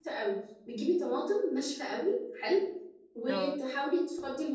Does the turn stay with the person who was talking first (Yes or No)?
Yes